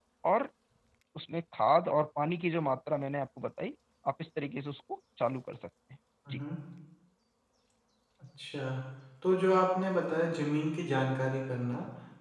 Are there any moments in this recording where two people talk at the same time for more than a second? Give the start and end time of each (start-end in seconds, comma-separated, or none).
none